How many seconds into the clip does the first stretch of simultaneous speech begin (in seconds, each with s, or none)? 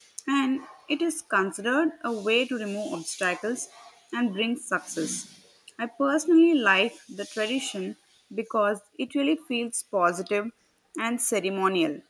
none